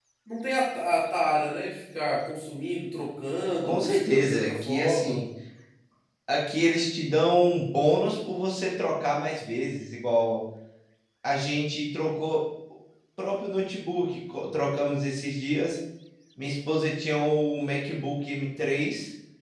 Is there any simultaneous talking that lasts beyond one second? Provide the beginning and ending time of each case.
3.6-5.2

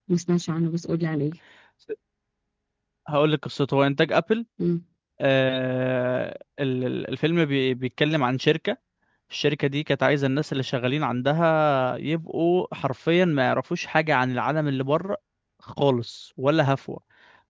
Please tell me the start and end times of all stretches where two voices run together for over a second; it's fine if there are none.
none

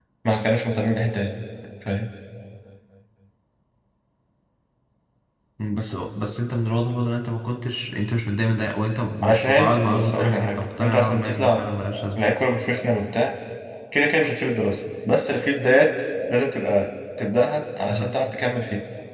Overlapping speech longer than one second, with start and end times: 9.2-11.6

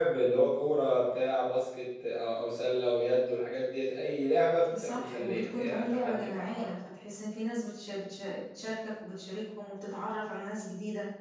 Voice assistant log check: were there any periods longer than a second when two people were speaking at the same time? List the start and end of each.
4.8-6.7

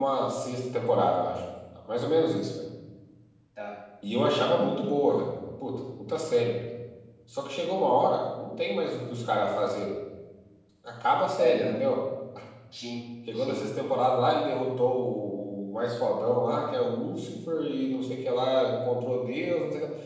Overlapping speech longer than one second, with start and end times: none

